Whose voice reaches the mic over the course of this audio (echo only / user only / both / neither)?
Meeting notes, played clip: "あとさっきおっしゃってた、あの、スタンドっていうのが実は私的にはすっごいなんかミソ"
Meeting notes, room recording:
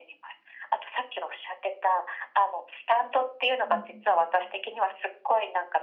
both